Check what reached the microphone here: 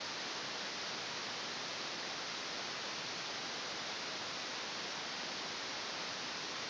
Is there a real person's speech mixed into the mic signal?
No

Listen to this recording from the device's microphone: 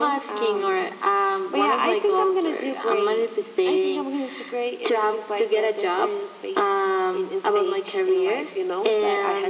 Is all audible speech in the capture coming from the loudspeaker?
Yes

